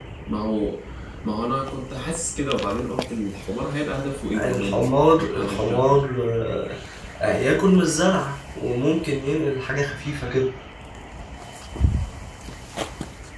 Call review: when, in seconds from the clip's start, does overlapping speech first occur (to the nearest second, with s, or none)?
4 s